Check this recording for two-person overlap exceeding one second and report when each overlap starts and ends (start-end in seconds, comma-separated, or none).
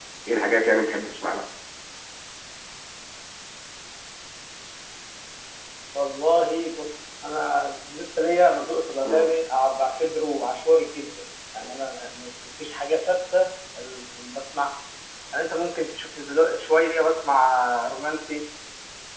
none